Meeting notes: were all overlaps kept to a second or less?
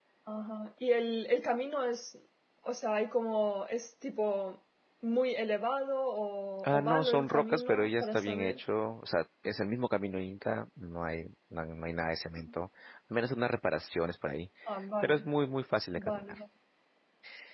No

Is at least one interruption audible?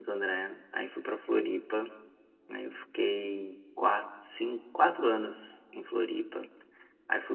No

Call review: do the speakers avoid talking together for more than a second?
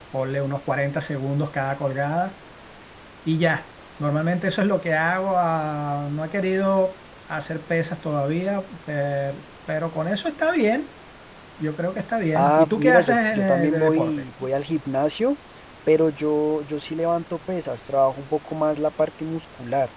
No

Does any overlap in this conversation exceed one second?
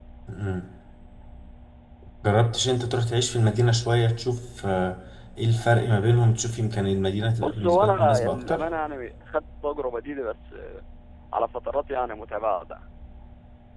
Yes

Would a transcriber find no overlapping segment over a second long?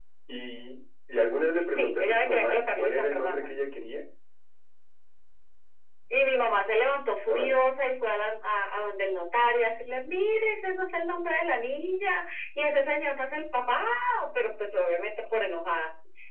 No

